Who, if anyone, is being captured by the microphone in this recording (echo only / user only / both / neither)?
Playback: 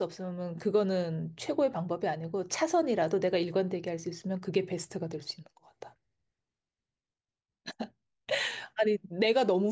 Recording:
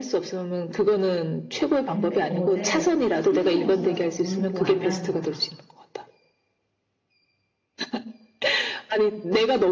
both